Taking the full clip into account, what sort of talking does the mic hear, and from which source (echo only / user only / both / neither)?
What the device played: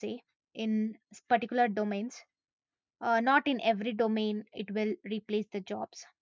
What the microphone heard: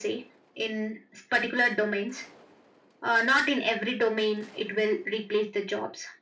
echo only